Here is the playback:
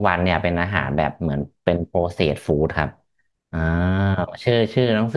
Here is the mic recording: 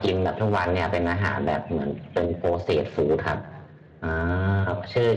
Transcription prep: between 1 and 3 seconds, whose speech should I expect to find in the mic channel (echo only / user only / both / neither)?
echo only